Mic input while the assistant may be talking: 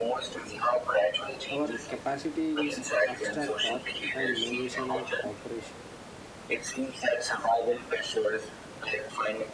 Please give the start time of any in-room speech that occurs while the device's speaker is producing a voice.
1.5 s

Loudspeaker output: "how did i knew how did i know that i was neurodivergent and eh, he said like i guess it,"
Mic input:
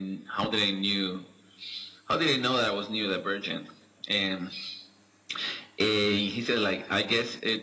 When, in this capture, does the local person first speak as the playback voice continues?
none

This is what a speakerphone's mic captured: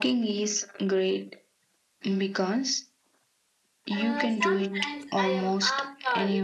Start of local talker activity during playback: 4.0 s

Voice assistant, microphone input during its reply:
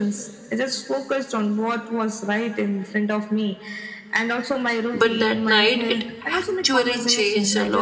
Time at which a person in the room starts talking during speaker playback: 4.9 s

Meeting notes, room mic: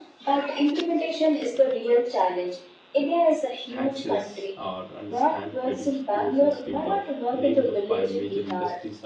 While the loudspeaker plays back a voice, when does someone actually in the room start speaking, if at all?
3.6 s

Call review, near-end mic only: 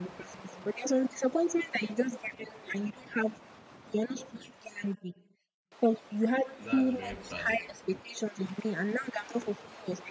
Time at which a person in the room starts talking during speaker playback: 6.6 s

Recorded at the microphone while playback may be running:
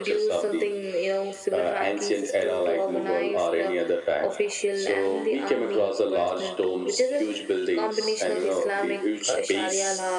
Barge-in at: none

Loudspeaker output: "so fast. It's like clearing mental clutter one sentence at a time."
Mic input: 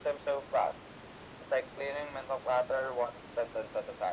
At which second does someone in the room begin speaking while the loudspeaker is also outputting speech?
none

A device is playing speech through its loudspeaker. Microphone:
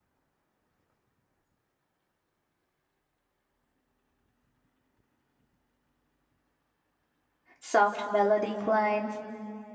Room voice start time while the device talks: 7.6 s

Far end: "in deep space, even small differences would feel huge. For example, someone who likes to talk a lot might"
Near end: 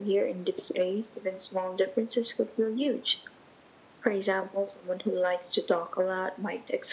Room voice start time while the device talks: none

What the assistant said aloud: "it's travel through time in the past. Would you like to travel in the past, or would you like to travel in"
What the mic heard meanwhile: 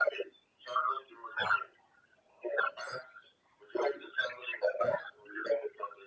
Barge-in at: none

